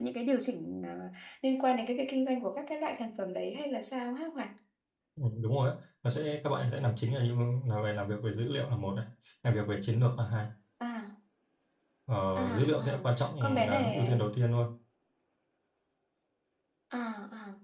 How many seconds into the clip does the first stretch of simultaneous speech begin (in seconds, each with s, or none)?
12.4 s